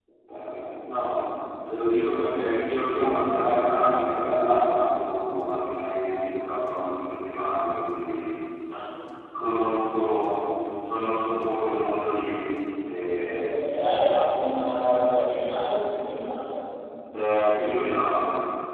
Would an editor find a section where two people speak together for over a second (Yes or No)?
No